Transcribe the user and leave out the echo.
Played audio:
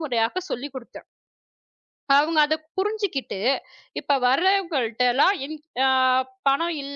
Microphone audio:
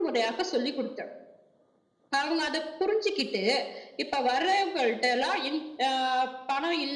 none

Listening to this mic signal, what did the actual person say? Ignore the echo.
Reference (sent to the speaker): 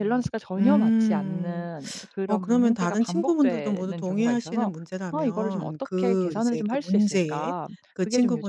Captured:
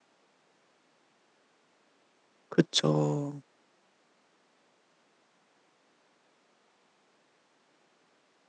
그쵸.

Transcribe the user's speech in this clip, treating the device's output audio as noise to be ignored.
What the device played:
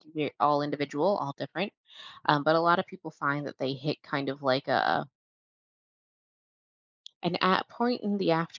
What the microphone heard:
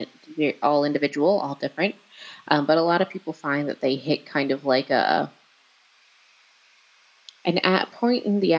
none

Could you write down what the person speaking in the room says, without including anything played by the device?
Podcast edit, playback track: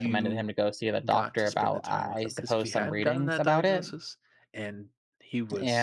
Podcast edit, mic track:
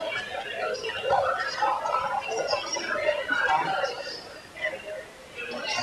none

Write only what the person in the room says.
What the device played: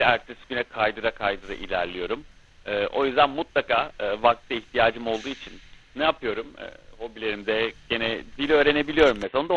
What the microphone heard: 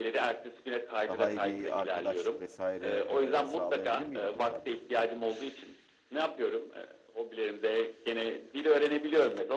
daha iyi bir arkadaşlık vesaire eee, sağlayabilir miydi bu sence?

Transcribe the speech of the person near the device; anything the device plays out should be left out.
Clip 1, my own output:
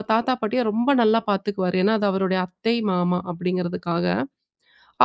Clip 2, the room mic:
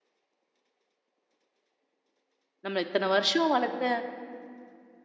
நம்ம இத்தன வருஷம் வளர்த்த

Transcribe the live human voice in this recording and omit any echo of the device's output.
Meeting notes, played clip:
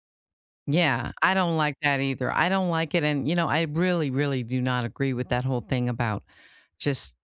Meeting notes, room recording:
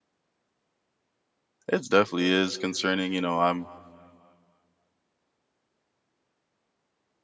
it's definitely is concerning you know i'm

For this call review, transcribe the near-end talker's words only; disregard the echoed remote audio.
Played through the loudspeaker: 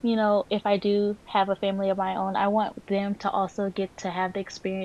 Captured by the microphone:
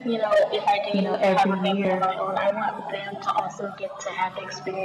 you know, every year,

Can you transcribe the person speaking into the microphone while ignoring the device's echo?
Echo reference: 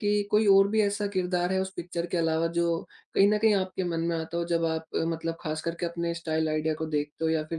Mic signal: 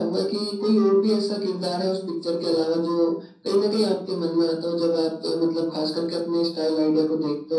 none

